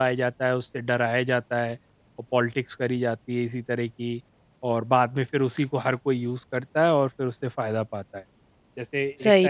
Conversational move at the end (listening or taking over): listening